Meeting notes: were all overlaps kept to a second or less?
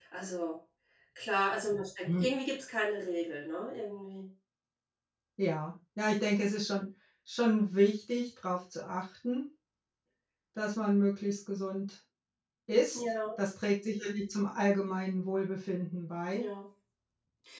Yes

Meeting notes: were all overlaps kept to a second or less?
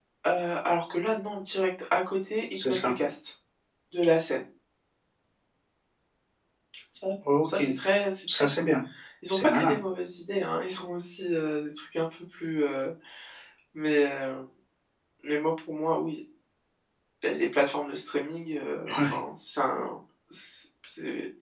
Yes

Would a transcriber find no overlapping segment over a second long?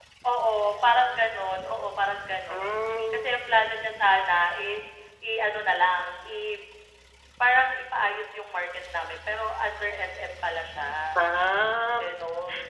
Yes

